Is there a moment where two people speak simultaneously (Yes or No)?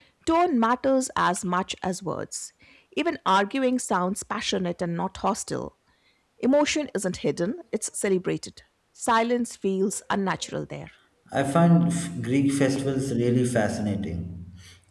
No